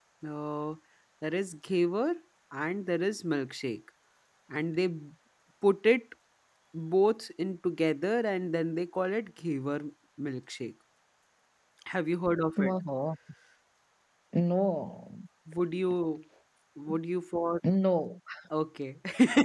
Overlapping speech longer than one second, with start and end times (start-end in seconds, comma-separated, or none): none